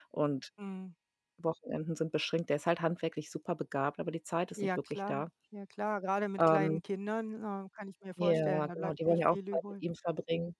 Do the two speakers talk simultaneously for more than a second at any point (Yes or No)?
Yes